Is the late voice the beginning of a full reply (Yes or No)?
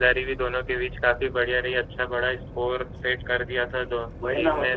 Yes